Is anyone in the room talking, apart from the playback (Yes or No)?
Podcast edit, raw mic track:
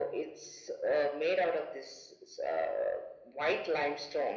No